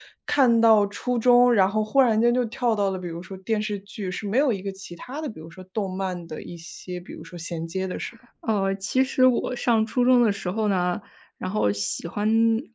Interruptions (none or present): none